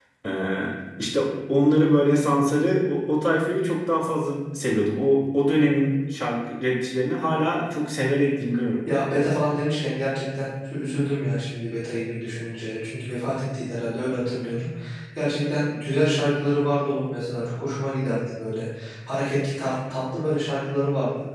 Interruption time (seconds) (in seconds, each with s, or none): none